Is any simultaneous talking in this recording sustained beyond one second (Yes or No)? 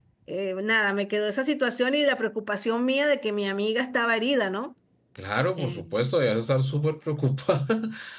No